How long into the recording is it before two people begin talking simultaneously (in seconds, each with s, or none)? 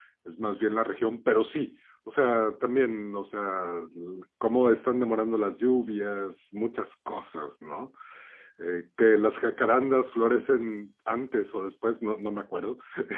none